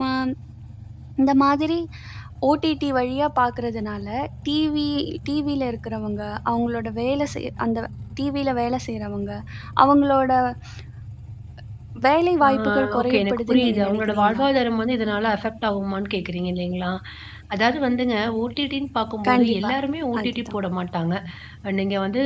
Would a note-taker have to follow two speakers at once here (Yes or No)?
Yes